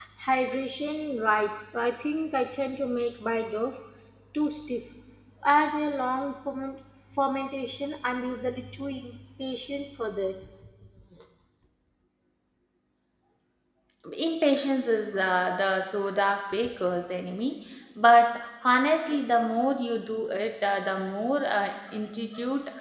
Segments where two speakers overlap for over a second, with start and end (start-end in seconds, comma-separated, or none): none